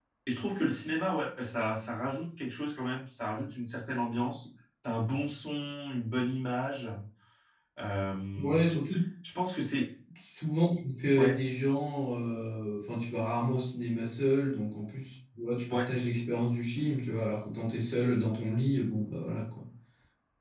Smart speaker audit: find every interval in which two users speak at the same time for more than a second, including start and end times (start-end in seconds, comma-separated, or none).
none